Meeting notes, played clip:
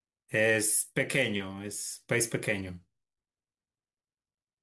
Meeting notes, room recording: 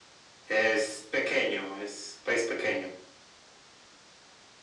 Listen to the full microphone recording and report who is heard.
echo only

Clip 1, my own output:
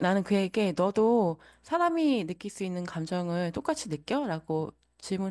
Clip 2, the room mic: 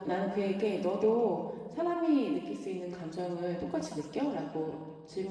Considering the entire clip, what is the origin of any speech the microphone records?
echo only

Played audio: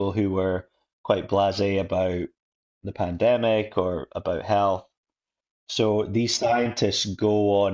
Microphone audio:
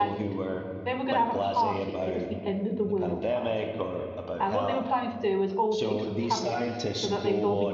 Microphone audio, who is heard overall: both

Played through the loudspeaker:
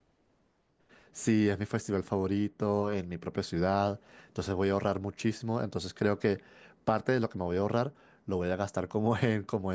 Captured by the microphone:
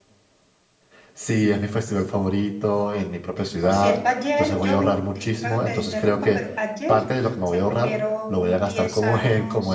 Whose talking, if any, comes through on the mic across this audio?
both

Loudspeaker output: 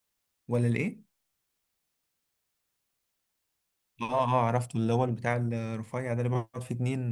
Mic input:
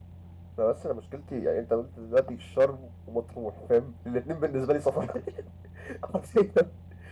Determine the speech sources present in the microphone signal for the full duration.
user only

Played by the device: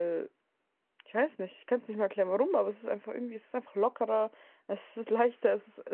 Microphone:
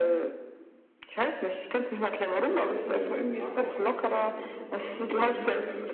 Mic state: both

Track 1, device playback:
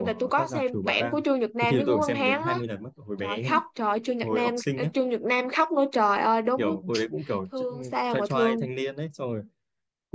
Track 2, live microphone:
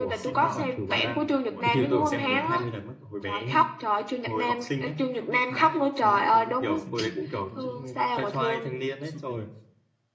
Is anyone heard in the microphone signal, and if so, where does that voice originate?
both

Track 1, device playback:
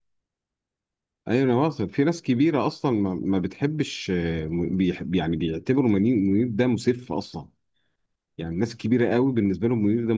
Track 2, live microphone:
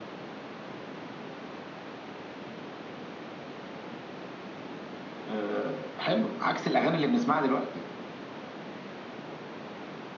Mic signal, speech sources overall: user only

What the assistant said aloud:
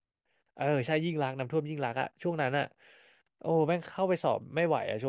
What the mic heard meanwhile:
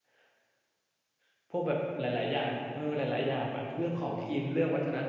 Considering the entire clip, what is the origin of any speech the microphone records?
user only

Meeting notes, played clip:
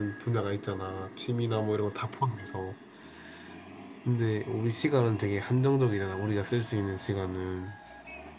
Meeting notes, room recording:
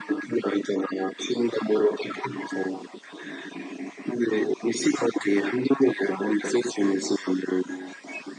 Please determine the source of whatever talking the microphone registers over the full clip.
echo only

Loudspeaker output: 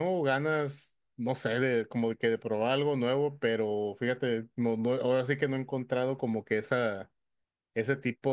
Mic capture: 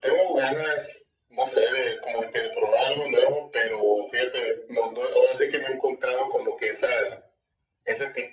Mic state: echo only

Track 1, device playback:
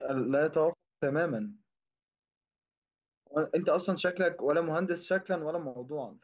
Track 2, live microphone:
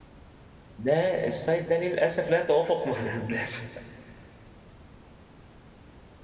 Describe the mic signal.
user only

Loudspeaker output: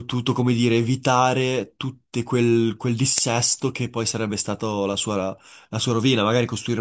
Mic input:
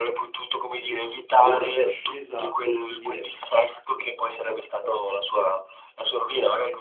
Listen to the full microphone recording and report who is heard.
both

